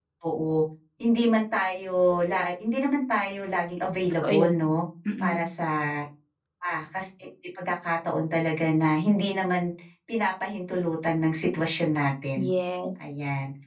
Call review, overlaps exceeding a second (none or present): none